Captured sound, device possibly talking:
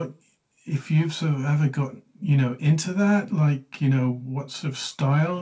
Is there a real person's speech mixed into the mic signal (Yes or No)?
No